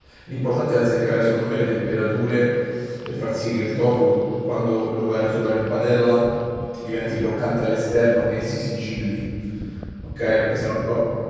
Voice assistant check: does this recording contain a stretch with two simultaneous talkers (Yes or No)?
No